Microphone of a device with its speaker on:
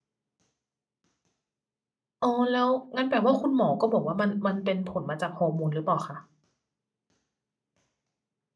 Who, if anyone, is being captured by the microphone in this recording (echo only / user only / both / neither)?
user only